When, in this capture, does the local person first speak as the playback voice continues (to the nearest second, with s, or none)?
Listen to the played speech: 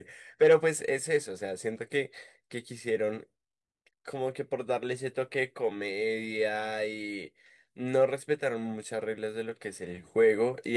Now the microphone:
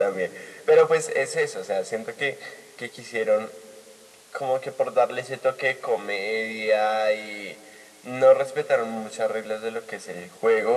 none